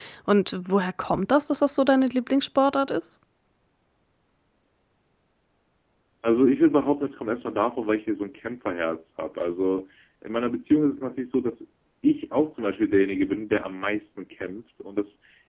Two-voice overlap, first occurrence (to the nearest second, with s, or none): none